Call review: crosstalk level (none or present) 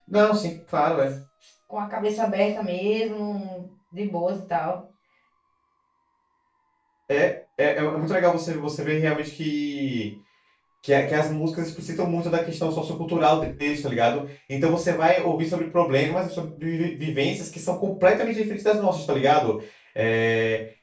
none